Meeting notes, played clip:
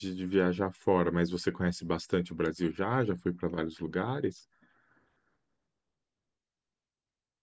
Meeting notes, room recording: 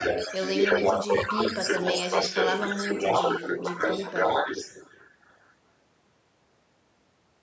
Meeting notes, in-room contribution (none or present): present